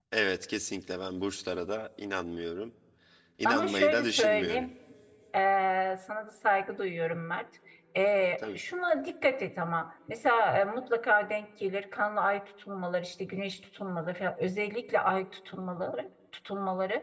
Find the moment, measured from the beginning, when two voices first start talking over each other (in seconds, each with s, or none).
3.5 s